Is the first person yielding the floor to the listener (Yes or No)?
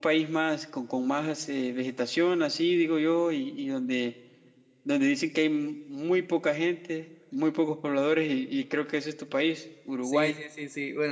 Yes